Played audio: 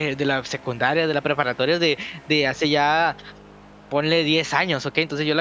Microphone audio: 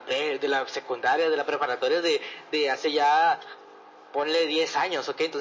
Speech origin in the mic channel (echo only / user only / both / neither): echo only